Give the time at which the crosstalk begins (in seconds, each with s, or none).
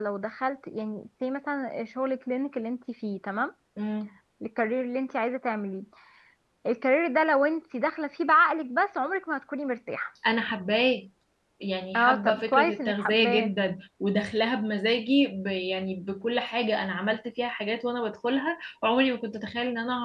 12.0 s